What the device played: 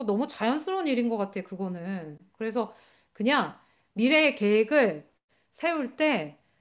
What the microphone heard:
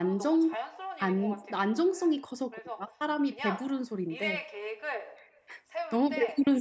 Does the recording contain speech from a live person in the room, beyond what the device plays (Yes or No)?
Yes